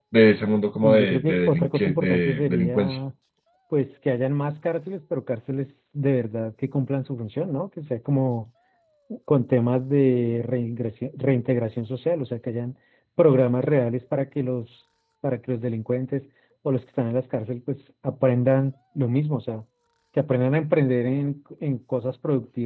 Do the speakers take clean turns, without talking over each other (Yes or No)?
No